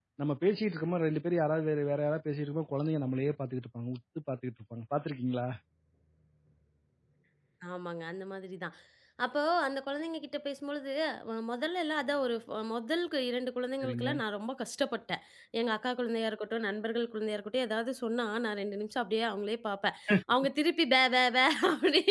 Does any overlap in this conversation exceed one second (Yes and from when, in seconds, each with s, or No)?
No